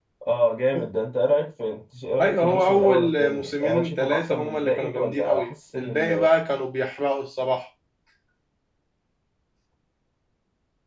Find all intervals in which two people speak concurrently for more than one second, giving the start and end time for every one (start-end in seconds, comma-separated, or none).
2.2-6.3